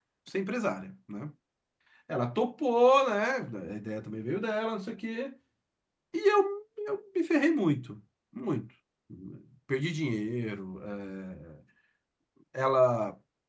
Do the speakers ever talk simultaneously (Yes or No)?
No